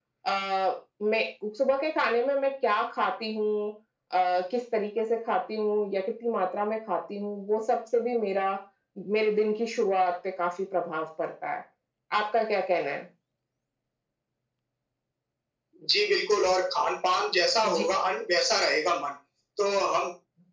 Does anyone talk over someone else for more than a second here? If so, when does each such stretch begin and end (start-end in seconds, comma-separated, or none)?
none